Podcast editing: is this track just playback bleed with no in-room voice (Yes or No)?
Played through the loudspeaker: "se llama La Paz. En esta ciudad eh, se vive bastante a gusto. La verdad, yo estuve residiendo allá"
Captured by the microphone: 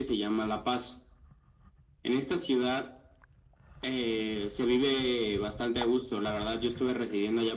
Yes